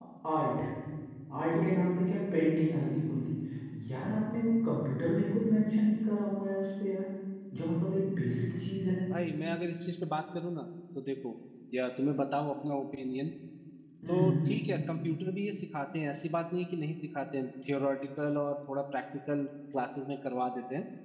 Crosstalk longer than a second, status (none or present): none